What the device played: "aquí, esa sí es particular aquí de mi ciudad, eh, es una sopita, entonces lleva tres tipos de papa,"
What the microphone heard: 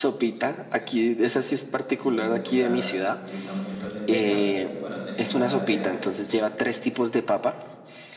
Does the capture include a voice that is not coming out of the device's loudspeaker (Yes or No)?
Yes